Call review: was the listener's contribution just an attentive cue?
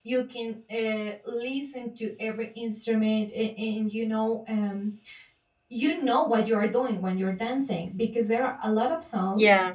Yes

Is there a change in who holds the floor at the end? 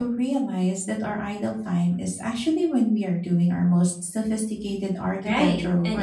Yes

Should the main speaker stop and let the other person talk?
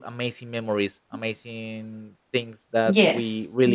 Yes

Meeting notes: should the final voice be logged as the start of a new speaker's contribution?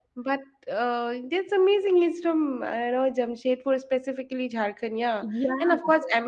No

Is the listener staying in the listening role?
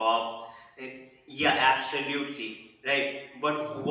Yes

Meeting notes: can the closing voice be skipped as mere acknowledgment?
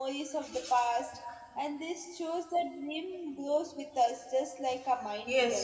No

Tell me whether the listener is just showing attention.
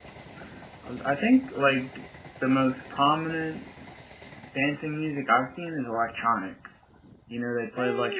Yes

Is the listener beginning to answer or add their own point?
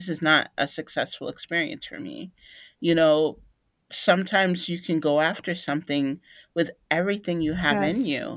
No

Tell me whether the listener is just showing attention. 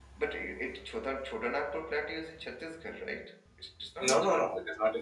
No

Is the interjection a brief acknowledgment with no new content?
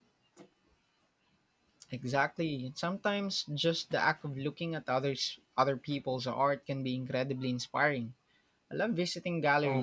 No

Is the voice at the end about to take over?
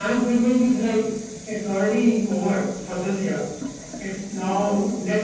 No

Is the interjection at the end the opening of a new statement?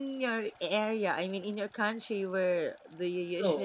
Yes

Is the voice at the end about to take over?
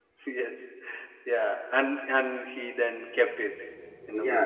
Yes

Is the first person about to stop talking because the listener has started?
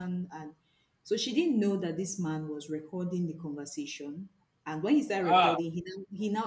No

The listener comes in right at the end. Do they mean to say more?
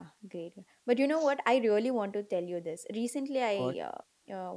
No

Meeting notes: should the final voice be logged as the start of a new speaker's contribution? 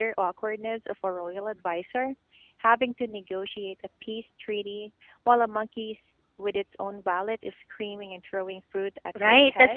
Yes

